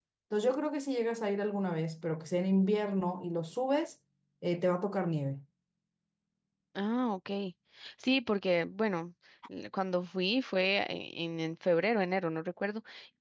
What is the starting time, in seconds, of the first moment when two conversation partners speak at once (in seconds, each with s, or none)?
none